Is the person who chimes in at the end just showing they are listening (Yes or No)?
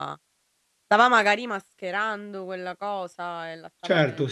No